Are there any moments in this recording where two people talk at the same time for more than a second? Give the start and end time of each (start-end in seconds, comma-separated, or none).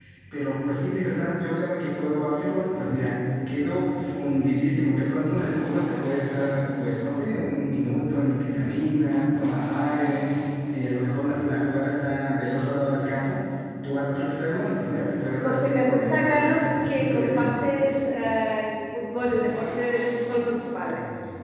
15.4-17.5